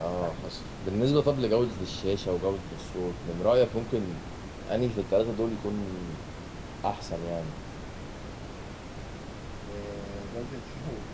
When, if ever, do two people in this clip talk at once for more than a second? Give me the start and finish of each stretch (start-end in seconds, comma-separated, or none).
none